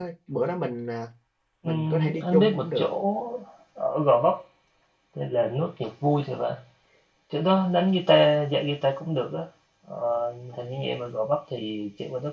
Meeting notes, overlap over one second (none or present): present